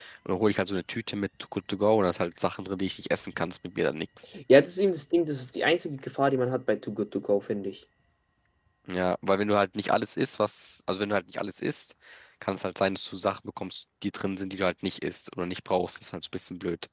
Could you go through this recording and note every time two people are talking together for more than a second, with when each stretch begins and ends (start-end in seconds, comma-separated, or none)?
none